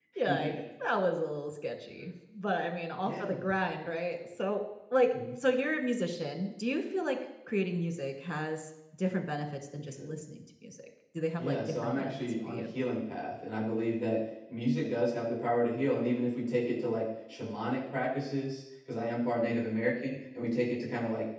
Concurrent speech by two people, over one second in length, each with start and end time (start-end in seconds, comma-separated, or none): 11.4-12.6